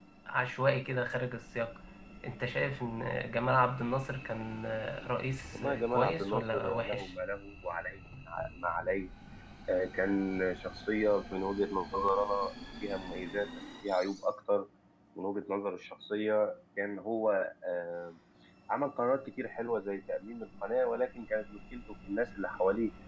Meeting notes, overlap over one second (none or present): present